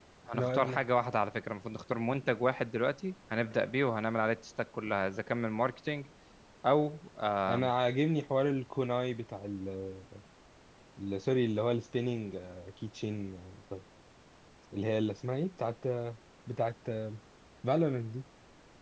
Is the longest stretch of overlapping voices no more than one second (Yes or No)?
Yes